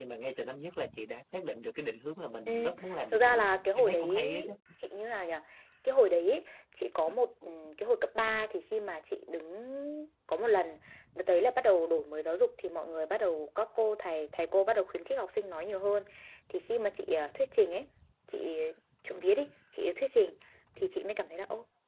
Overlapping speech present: Yes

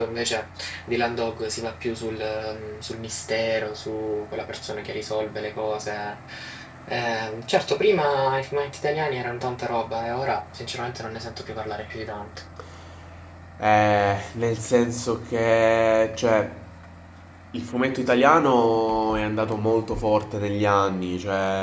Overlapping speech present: No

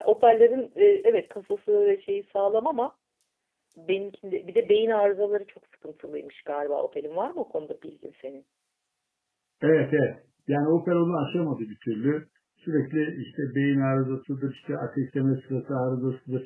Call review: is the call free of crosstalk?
Yes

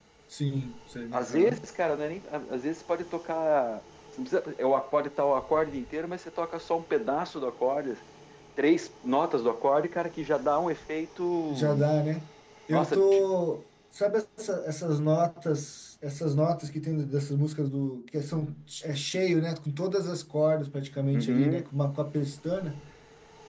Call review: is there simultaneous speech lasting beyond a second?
No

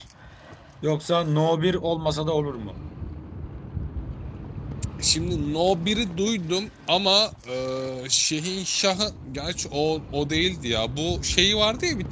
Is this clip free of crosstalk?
Yes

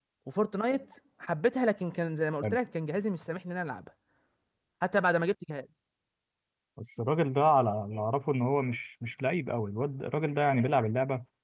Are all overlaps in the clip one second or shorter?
Yes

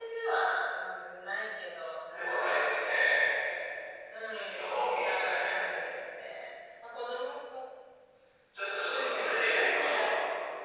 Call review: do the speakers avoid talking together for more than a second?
No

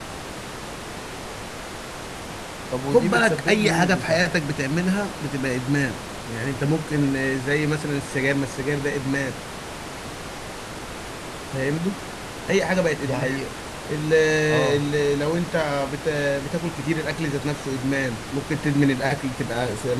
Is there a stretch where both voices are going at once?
Yes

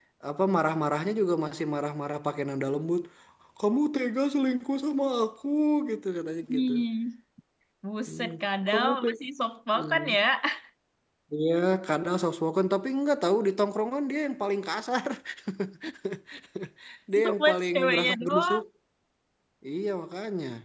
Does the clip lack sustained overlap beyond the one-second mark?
No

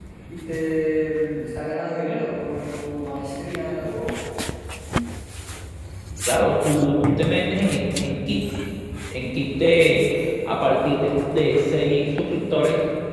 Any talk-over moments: No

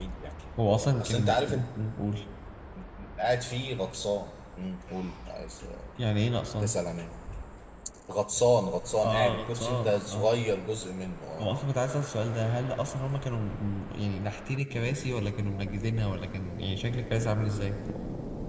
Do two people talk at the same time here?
Yes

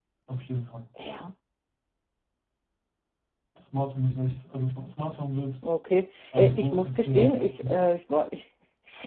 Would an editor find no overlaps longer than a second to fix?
No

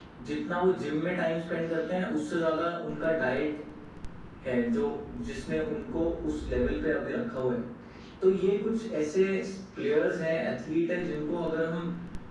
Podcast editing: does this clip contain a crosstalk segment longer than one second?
No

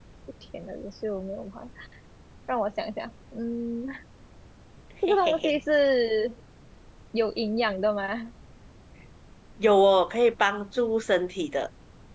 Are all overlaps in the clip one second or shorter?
Yes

